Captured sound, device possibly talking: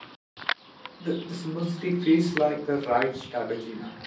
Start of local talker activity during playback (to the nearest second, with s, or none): 1 s